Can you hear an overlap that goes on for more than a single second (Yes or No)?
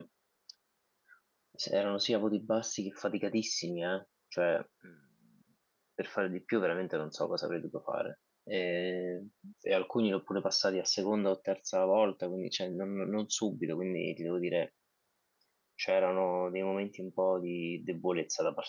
No